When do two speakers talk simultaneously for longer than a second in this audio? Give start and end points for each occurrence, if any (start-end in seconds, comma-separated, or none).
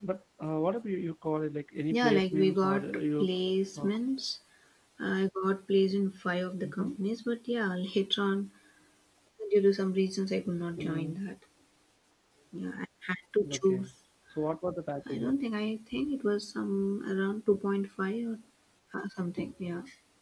1.9-3.3